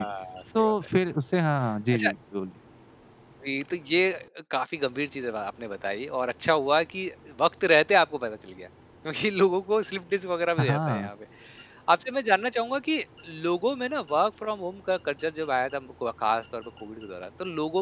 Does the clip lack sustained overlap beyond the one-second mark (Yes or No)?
Yes